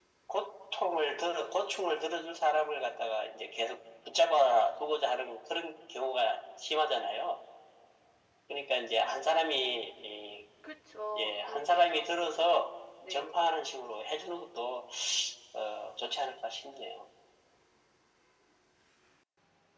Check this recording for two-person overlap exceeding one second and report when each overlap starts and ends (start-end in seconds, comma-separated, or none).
11.1-12.5